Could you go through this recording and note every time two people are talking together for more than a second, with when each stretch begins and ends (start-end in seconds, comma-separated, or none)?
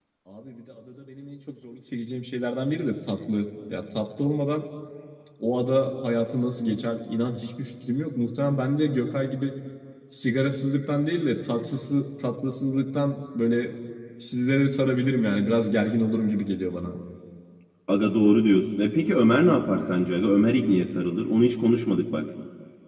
none